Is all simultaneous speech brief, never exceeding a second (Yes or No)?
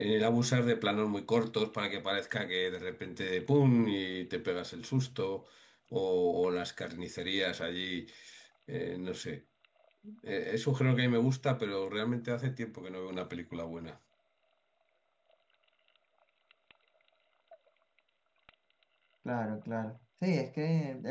Yes